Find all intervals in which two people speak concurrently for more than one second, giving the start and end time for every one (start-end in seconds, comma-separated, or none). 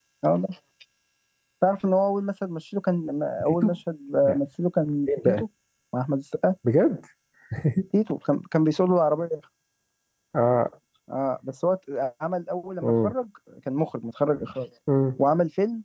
none